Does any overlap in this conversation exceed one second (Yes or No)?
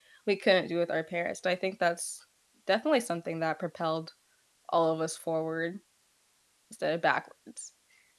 No